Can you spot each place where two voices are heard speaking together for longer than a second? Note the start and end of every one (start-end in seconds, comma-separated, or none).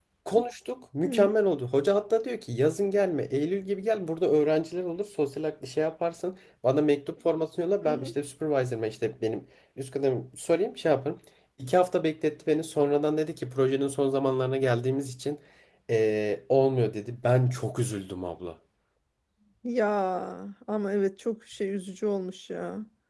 none